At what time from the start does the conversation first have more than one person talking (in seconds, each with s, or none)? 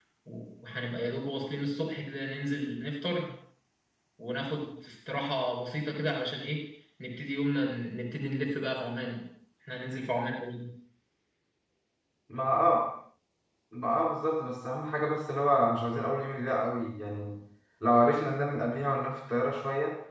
none